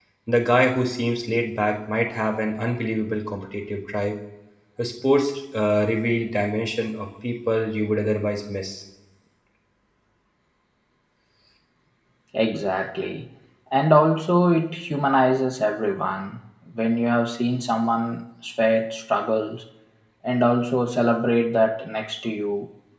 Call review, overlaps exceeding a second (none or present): none